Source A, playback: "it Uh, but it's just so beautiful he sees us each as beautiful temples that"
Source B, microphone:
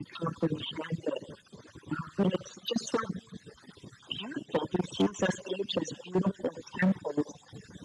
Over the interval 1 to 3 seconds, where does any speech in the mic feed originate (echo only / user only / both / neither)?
echo only